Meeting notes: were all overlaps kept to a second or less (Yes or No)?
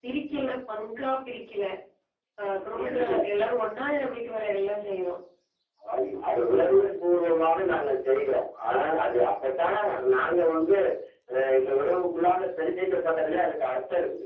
Yes